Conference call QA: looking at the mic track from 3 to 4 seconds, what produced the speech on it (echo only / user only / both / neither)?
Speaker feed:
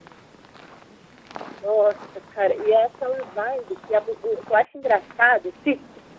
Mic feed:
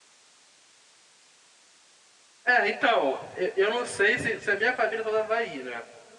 user only